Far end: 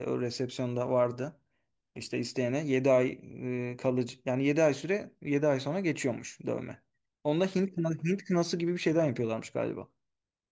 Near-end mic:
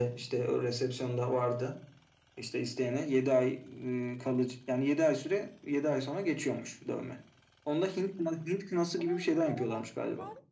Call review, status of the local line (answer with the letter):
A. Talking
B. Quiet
A